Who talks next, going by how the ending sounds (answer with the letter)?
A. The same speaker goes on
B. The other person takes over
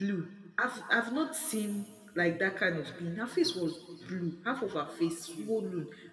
A